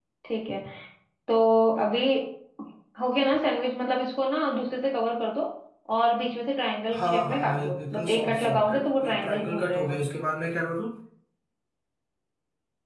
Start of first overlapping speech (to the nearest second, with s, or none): 7 s